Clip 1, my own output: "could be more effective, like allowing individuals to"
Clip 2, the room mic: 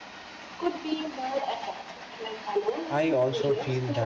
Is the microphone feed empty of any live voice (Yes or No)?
No